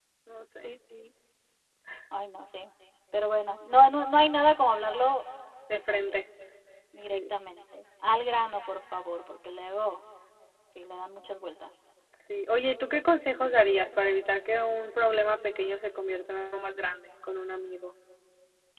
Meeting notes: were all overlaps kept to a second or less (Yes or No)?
Yes